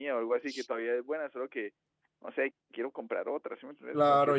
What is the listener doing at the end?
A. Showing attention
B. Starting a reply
B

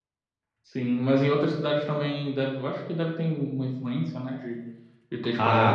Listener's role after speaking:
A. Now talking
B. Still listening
A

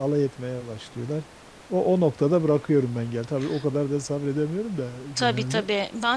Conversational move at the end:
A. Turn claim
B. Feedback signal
A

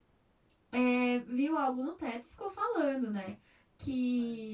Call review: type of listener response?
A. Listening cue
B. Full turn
A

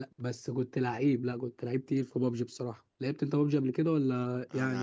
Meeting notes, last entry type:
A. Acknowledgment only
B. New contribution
B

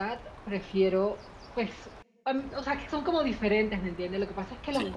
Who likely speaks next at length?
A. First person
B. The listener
A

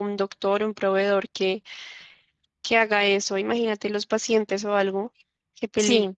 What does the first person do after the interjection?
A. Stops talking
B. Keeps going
A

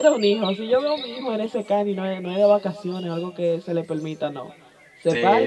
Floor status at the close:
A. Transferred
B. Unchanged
A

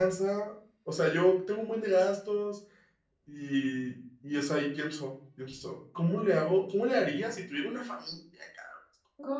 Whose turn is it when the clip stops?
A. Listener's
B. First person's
A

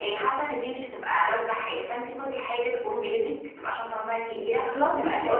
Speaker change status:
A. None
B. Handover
B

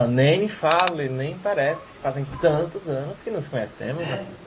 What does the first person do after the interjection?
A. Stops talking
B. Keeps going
A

